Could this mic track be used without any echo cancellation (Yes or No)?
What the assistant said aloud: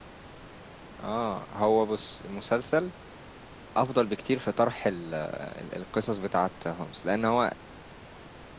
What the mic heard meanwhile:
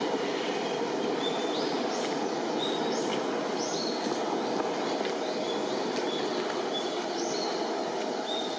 Yes